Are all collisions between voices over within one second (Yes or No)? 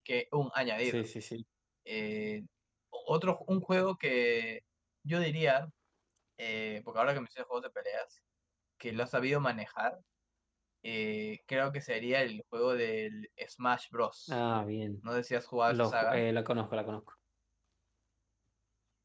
Yes